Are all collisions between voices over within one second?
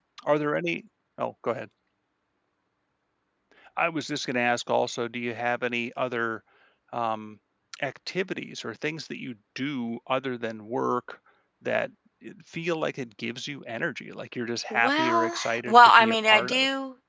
No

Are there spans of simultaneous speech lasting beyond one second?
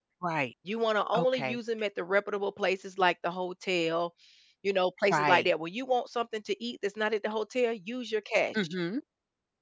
No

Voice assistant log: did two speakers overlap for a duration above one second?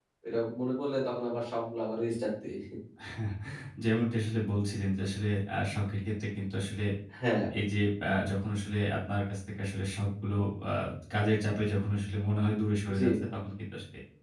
No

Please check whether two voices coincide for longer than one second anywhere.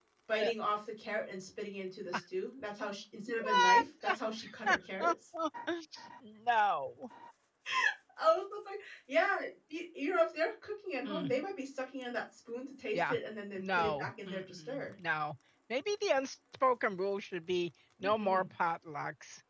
Yes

